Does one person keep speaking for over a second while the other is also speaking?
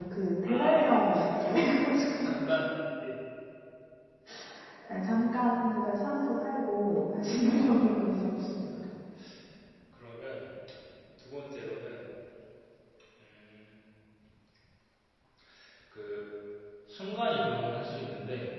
Yes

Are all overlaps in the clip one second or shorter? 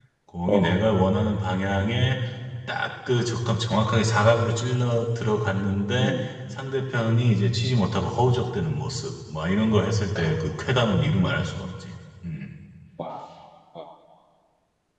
Yes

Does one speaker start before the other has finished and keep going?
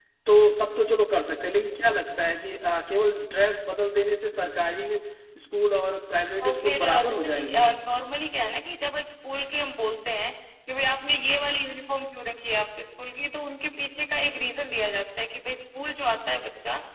Yes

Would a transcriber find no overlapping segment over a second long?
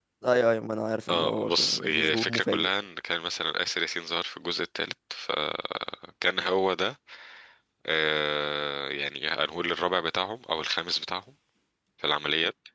No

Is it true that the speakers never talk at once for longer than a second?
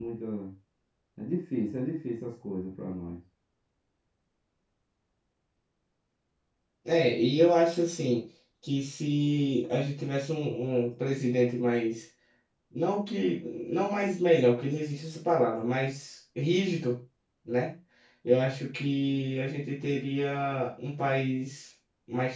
Yes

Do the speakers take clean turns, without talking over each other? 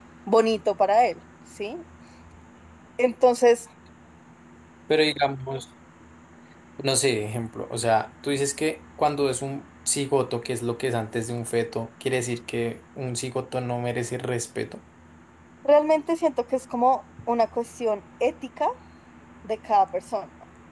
Yes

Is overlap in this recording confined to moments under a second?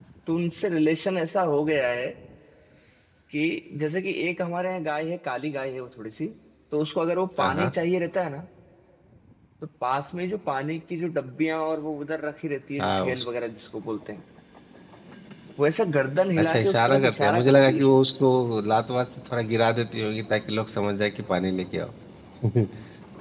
No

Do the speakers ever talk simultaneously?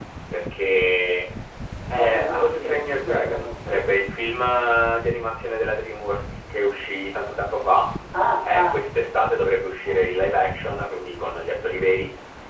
Yes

